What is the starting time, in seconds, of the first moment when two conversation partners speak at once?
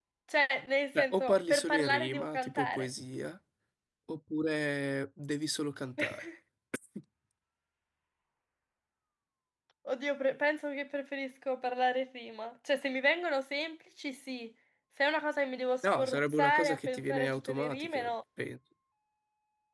1 s

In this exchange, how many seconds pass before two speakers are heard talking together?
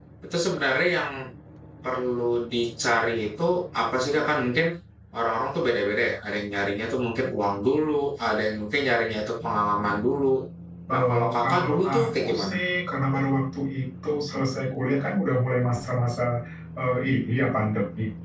11 s

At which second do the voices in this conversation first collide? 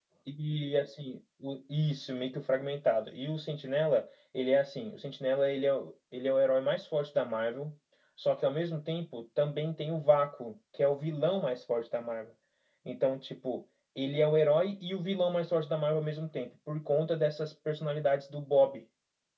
none

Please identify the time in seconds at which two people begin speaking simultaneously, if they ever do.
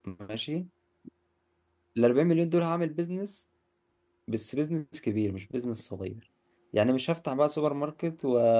none

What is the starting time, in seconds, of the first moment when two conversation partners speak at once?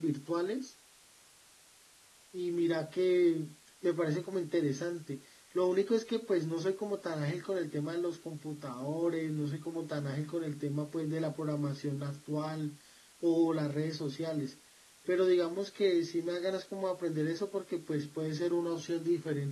none

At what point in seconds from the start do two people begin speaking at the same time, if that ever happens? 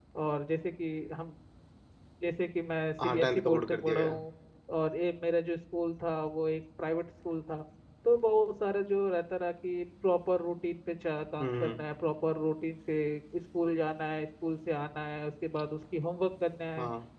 3 s

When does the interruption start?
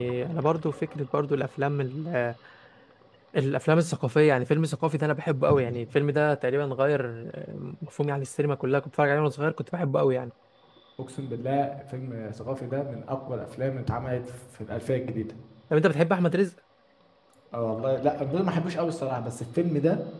none

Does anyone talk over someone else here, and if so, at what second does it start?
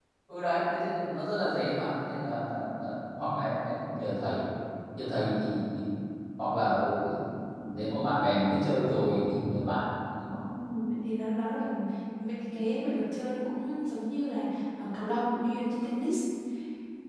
none

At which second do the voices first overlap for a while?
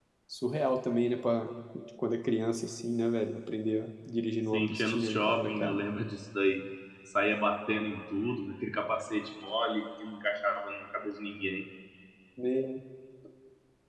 5 s

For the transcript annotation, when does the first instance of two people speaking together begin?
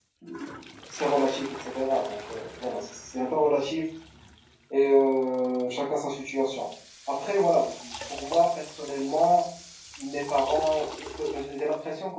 none

